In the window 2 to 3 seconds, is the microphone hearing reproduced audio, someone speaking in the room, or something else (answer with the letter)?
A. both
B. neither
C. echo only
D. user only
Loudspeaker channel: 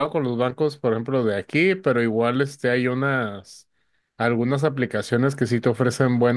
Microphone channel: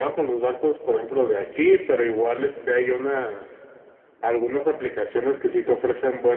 C